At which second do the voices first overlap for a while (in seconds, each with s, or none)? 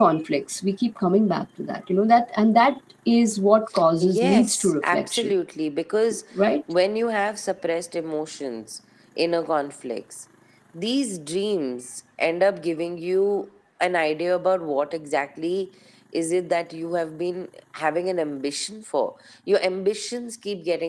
4.0 s